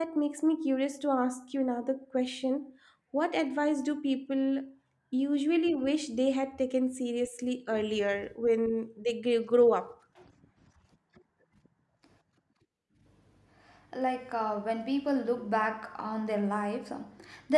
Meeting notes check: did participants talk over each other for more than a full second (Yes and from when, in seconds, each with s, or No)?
No